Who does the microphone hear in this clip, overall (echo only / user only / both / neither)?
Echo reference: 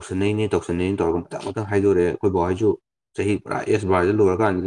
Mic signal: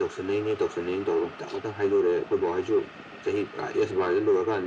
echo only